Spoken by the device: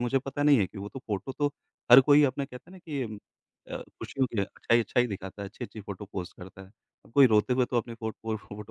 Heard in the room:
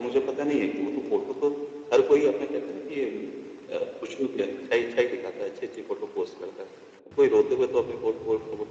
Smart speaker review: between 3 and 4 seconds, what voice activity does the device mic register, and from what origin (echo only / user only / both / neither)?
echo only